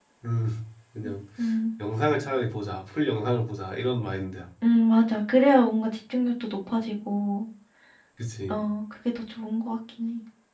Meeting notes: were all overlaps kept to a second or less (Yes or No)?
Yes